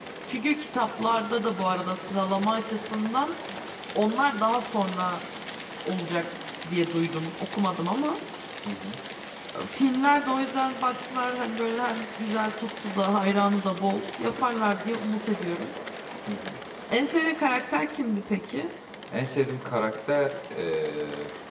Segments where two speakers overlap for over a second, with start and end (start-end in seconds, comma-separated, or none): none